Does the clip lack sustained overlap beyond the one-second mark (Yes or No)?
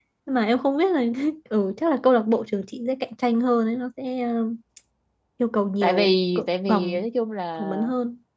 No